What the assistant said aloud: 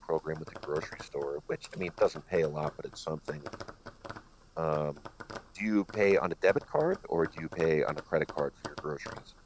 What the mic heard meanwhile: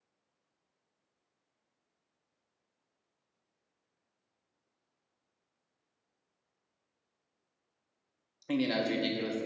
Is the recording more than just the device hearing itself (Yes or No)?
Yes